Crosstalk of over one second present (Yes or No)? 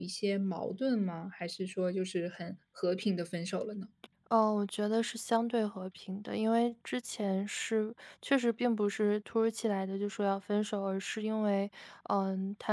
No